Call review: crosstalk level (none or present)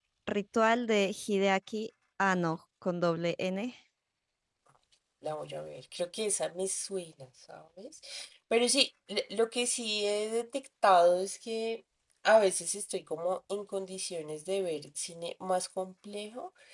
none